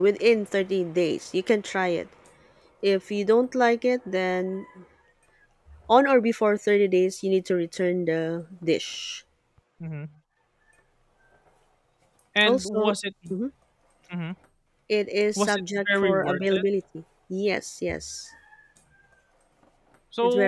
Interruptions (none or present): present